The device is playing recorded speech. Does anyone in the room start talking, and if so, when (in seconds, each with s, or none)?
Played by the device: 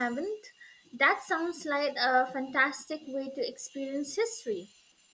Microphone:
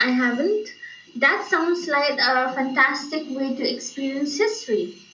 none